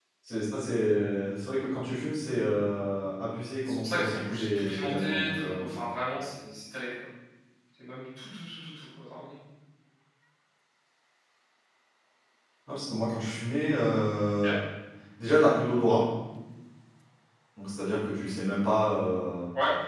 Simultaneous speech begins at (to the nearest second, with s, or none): 4 s